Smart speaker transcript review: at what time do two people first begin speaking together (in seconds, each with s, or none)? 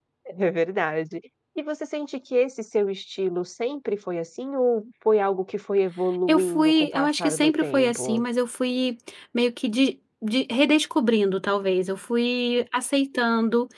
6.3 s